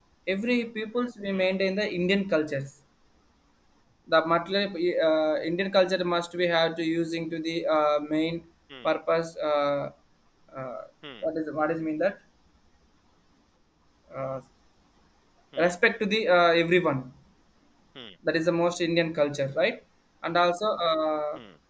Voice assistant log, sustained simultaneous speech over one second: none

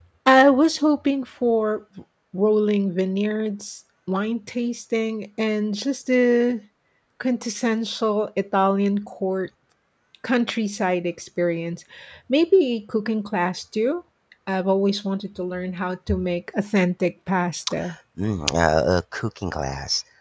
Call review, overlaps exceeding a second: none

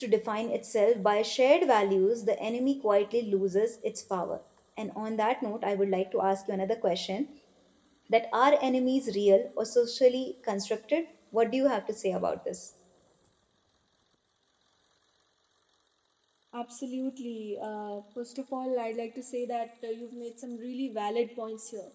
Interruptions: none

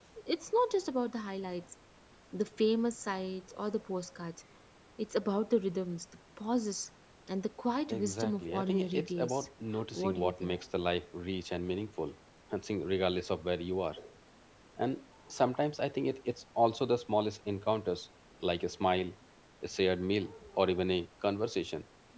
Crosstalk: present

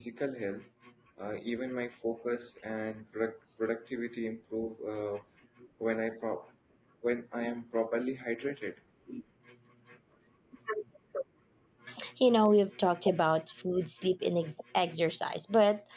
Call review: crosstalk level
none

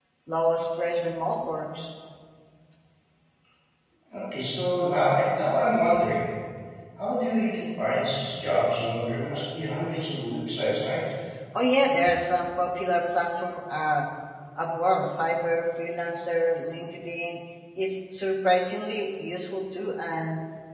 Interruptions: none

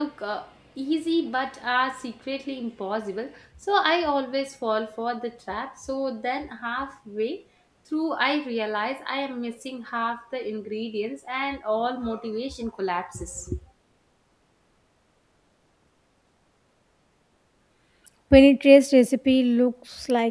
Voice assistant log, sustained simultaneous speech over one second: none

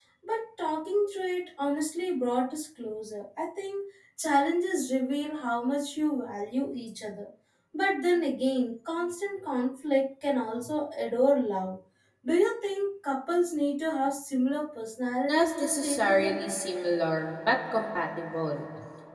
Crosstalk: present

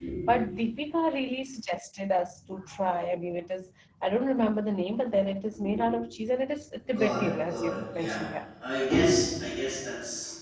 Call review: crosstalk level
present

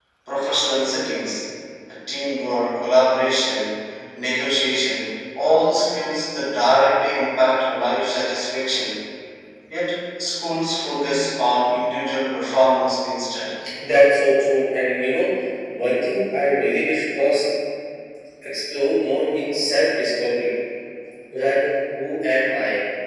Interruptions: none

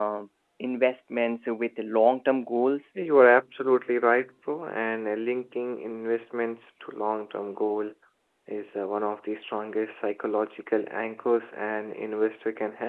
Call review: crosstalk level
none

